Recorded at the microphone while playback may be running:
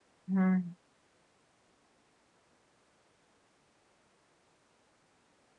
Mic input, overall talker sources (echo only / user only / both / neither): user only